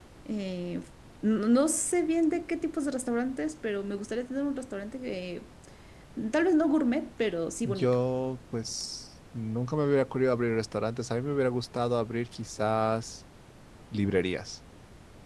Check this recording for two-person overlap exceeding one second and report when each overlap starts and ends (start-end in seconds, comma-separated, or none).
none